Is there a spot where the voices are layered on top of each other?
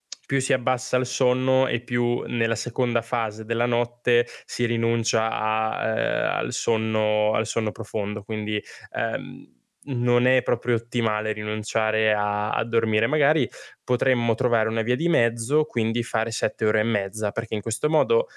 No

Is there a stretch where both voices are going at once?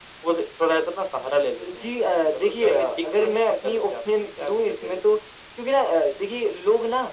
Yes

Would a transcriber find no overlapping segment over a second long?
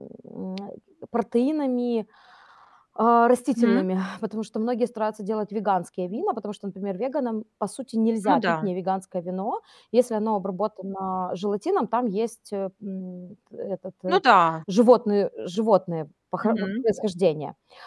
Yes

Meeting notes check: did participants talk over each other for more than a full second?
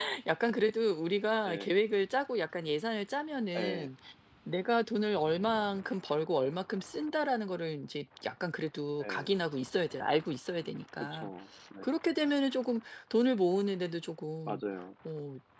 No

